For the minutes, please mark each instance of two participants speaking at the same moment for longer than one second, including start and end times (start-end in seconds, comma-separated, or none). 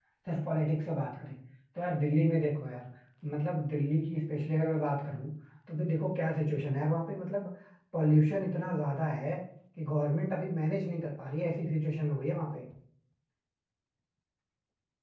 none